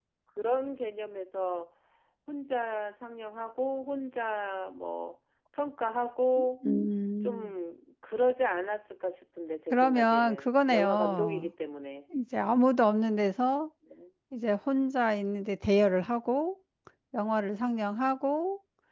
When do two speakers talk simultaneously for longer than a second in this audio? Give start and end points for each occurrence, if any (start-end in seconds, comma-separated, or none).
9.7-11.5